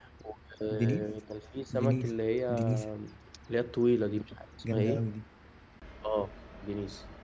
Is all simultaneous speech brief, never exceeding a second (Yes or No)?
Yes